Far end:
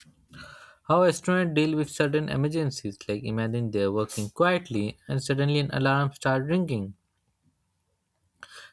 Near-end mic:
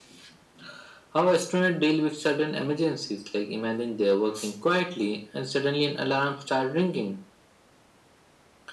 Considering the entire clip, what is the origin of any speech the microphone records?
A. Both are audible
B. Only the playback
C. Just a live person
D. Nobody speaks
B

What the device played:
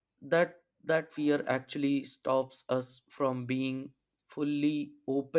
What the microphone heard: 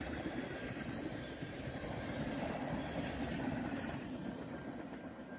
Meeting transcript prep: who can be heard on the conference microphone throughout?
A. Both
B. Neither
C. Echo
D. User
B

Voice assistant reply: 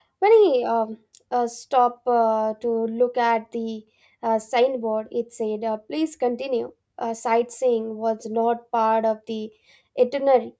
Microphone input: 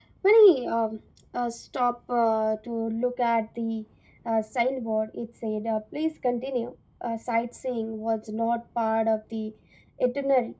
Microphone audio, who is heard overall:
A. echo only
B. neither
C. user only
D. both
A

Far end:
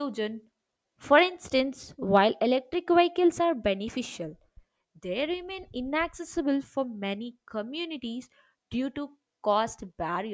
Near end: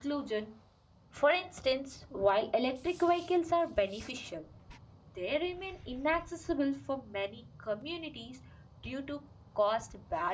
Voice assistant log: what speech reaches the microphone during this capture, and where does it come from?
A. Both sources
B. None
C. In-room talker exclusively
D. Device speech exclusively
D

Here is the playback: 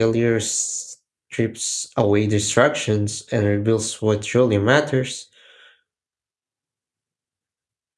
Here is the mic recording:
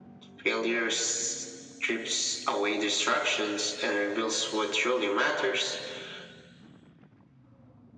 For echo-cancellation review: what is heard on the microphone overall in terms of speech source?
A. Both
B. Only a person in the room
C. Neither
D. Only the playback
D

